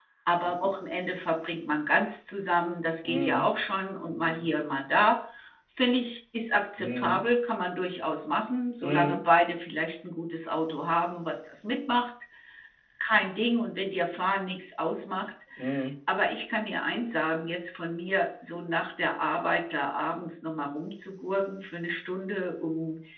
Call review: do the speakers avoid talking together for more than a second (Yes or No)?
Yes